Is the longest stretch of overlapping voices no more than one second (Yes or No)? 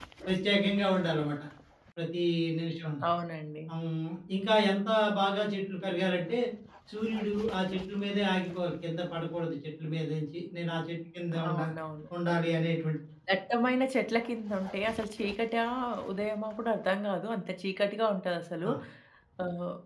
Yes